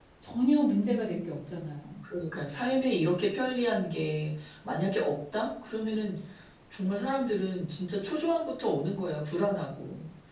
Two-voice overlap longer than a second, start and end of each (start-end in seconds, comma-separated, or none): none